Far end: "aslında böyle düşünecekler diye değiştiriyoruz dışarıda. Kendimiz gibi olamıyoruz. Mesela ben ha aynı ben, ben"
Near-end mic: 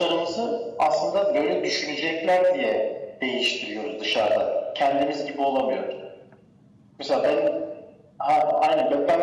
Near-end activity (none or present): none